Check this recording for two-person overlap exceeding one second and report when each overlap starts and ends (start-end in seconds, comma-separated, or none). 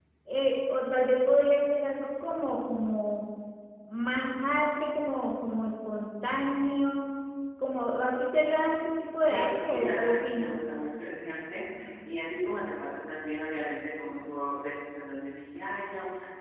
9.3-10.6